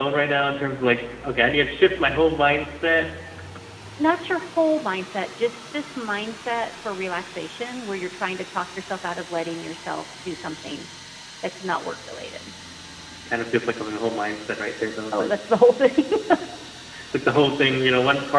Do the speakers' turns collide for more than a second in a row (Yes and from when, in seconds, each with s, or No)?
No